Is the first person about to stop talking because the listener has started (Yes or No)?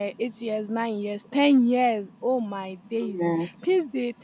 No